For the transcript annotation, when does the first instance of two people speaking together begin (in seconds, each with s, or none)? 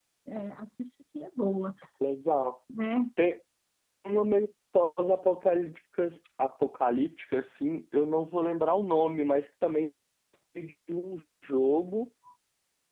none